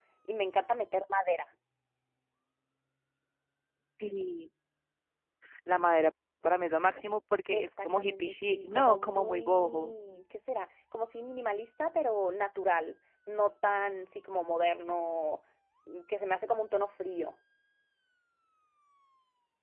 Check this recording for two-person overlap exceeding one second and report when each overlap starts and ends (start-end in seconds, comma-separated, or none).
7.5-9.9